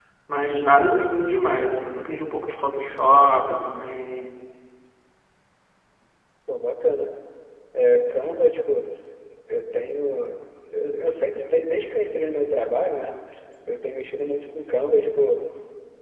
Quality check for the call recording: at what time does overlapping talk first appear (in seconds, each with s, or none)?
none